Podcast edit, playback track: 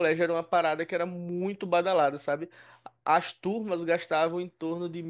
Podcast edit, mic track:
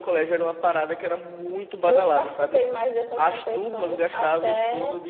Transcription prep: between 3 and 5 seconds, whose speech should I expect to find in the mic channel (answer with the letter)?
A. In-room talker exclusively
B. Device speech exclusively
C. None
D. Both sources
D